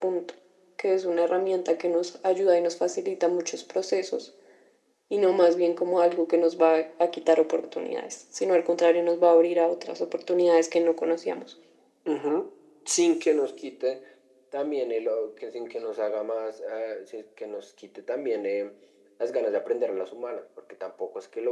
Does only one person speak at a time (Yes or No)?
Yes